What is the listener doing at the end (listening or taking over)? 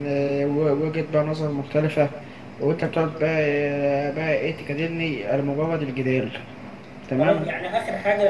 taking over